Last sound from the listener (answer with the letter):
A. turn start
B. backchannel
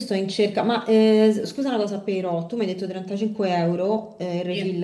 B